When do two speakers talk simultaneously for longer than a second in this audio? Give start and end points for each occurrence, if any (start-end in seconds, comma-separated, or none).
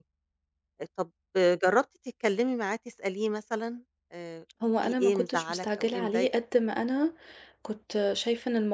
4.8-6.4